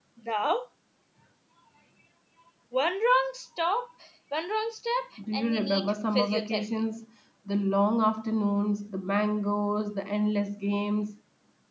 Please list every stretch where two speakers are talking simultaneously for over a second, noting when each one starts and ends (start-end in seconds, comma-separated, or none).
5.3-6.7